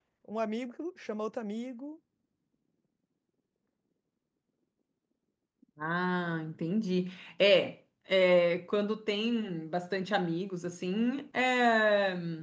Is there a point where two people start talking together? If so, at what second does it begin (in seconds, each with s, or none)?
none